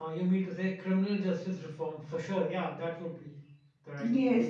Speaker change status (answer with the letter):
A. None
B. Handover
B